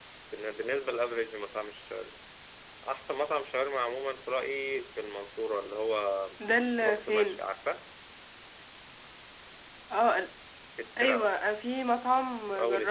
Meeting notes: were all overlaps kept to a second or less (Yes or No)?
Yes